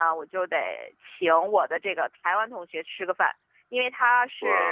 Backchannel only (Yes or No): Yes